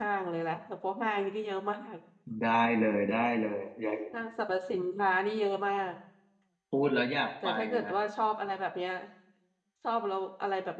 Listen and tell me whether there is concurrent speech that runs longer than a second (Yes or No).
No